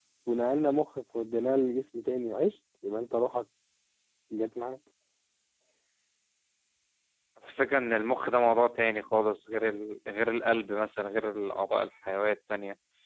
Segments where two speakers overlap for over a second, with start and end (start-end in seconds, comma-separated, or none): none